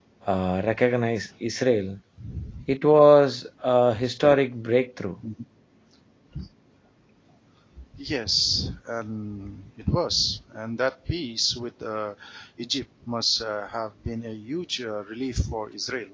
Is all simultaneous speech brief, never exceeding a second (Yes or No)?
Yes